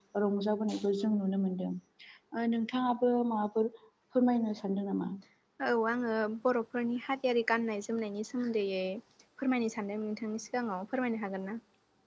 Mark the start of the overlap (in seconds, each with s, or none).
none